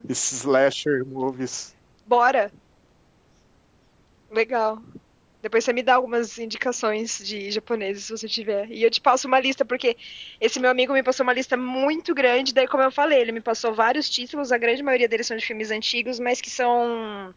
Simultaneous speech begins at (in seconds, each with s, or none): none